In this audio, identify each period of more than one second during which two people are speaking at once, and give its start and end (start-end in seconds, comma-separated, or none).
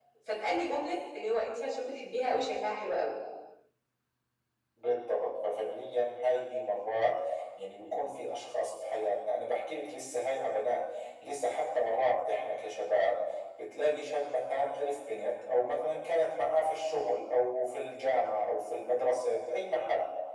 none